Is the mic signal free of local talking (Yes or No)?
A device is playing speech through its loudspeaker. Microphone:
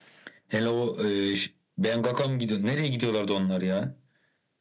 Yes